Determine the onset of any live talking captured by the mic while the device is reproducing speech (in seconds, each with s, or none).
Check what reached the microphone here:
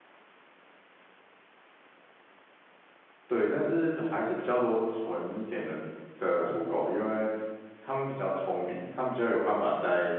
3.2 s